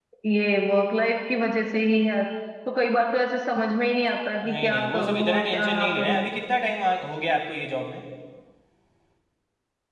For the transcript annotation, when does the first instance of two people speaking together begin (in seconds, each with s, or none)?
4.5 s